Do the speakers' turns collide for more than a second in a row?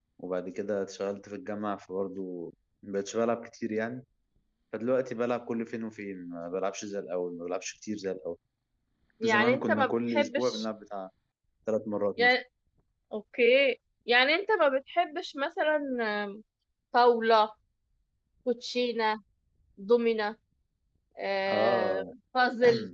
Yes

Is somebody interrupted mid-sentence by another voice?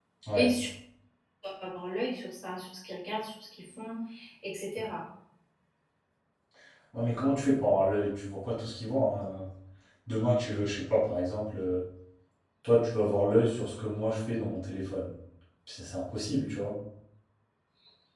No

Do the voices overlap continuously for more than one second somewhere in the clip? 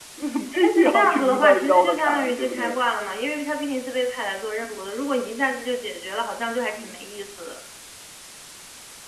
Yes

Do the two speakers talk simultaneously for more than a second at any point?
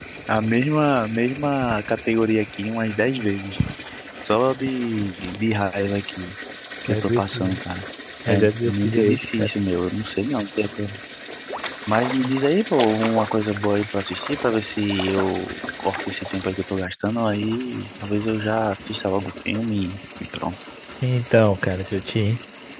Yes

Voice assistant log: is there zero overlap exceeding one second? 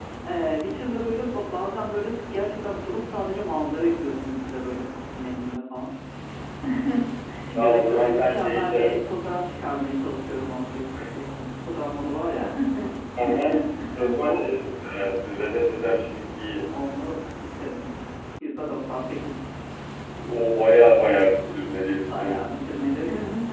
No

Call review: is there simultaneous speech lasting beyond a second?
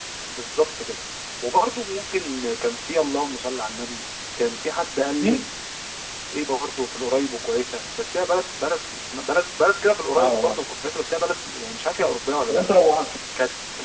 No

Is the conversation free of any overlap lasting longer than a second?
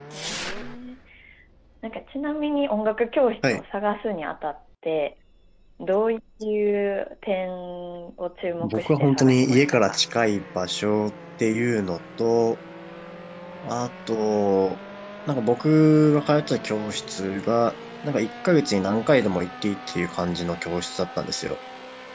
No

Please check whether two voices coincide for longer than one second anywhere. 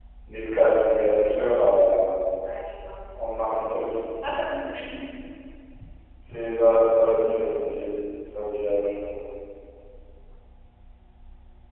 No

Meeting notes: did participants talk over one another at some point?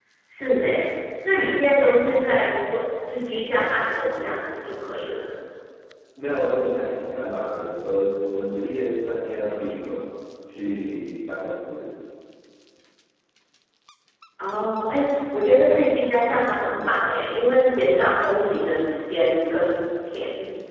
No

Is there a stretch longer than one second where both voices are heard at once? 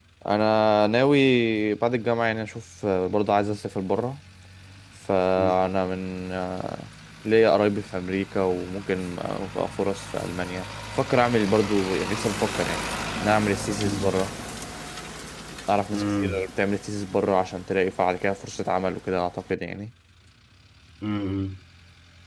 No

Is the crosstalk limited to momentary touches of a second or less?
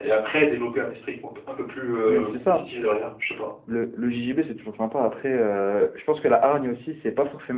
Yes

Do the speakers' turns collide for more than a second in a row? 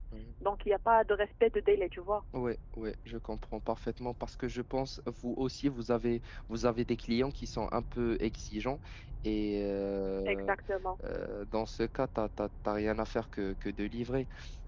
No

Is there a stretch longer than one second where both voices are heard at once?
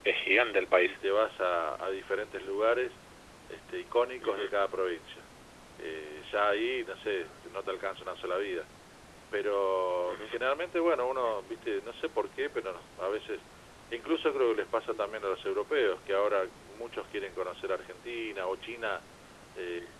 No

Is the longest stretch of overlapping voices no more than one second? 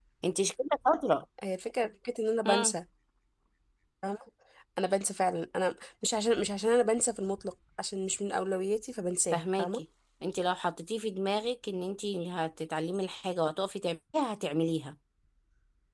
Yes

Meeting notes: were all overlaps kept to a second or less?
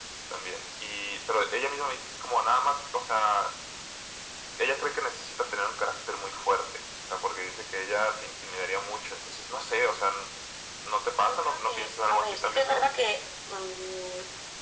No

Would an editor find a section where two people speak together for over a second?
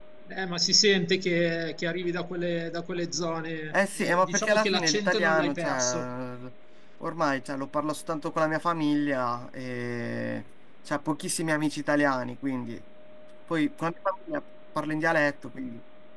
Yes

